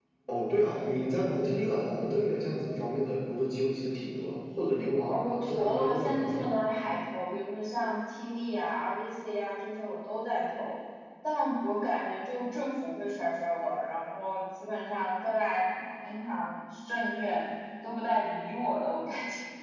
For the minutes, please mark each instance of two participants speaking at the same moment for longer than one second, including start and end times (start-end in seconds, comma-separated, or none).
5.1-6.5